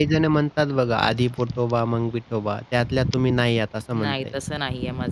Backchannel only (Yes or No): No